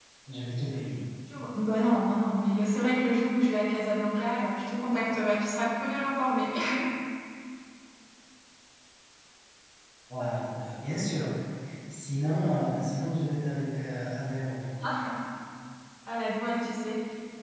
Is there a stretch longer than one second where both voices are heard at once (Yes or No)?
No